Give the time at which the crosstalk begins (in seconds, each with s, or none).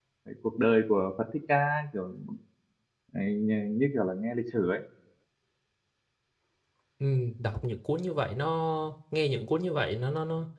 none